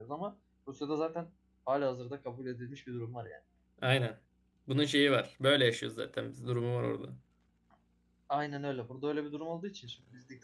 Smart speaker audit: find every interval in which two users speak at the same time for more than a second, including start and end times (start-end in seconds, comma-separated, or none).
none